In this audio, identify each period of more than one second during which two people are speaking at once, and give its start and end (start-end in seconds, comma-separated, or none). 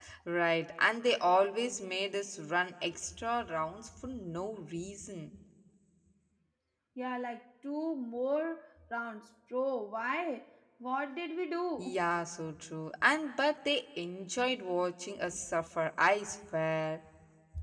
none